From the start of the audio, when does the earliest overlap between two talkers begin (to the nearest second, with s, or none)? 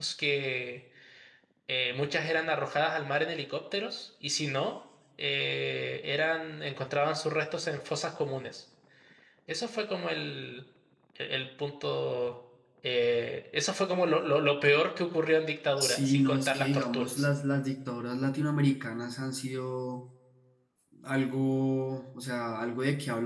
16 s